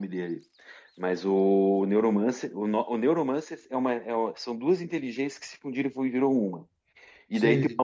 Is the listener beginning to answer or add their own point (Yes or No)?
No